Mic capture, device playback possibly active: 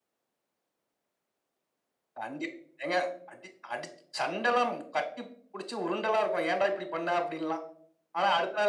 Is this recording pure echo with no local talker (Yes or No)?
Yes